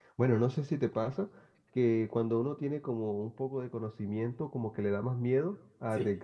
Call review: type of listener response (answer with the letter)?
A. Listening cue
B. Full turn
A